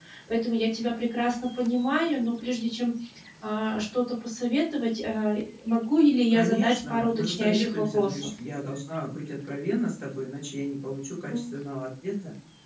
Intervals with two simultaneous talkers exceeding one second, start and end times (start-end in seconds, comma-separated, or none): 6.3-8.3